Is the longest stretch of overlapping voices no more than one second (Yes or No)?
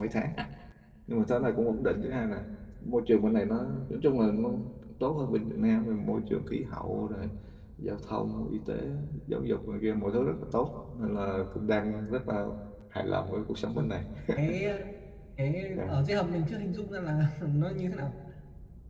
Yes